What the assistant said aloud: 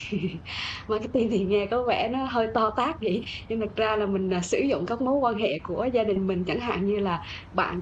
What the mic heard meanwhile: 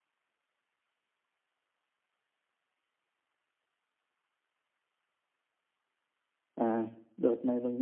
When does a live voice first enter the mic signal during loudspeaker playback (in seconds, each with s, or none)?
6.5 s